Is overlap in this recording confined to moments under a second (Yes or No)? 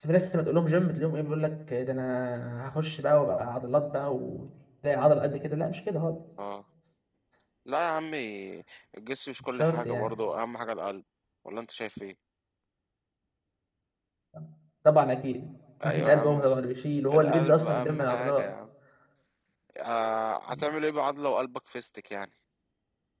No